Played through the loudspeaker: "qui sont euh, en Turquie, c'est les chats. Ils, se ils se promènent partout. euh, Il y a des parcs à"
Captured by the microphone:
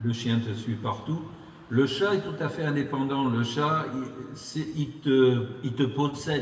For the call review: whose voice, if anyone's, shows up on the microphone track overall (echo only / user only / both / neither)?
user only